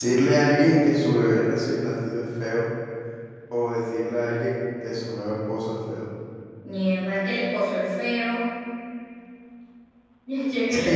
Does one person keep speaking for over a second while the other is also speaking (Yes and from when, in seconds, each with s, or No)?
No